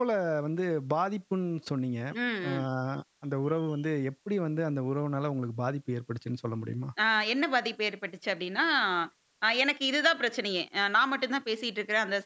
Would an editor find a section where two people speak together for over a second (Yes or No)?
No